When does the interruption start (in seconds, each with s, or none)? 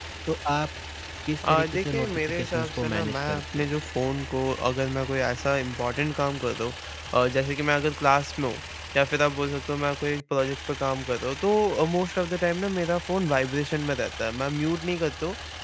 1.4 s